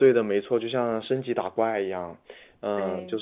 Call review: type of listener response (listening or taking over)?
listening